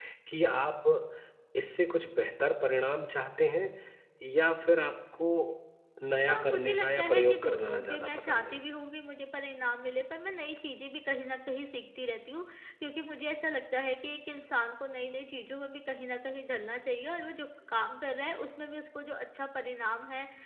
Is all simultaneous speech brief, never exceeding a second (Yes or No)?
No